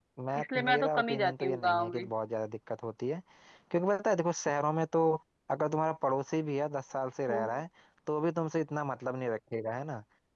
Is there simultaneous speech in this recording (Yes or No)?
Yes